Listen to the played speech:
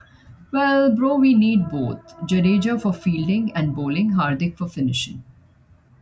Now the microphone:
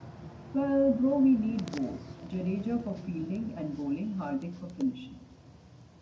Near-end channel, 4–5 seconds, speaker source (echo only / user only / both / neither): echo only